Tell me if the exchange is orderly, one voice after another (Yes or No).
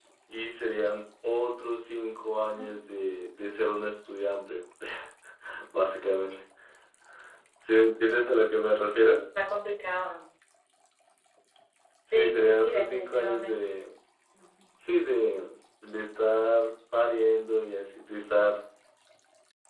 No